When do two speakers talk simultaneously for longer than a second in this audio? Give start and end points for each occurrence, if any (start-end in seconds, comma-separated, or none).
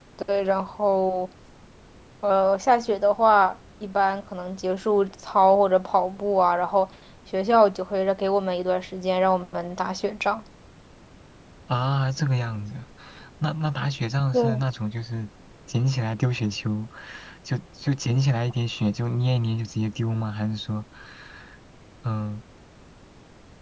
none